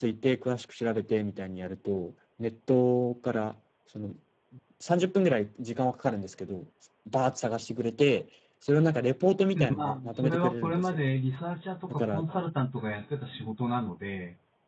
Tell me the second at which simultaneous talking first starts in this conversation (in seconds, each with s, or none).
9.8 s